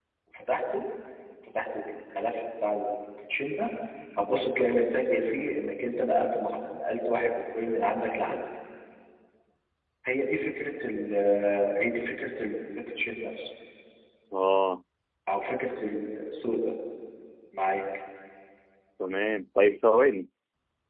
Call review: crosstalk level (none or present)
none